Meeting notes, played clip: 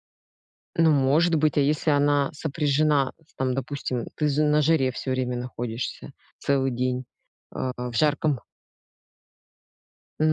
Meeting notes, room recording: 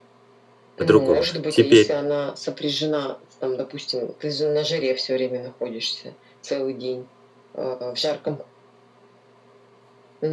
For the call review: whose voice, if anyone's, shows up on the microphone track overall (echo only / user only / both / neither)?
both